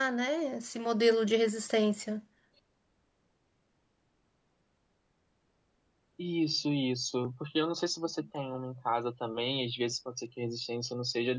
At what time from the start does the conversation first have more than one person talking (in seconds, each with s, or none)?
none